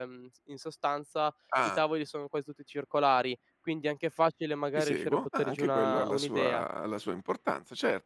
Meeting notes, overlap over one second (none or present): present